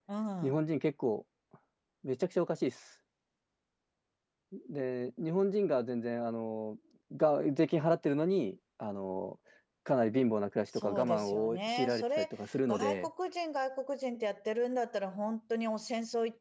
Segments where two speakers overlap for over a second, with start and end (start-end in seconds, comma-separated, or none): 10.7-12.3